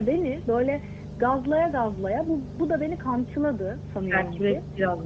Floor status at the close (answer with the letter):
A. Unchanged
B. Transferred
B